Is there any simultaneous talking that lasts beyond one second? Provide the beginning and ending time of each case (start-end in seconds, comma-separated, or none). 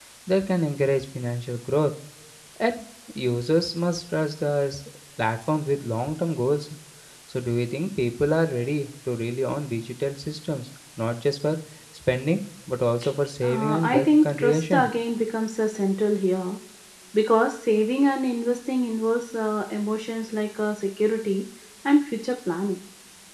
13.4-14.9